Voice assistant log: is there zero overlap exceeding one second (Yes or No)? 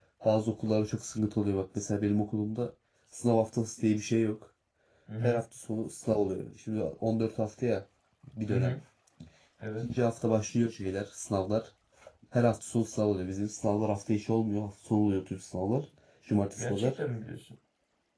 Yes